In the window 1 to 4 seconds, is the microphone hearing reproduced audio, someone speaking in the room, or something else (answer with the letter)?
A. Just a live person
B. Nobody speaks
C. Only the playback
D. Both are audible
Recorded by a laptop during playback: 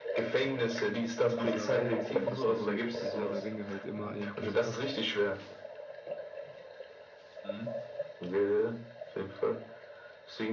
D